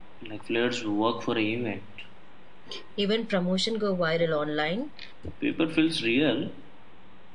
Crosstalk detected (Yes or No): No